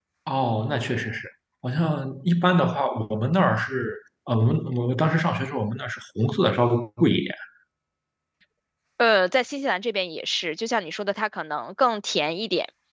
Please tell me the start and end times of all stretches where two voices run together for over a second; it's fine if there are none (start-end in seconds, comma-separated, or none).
none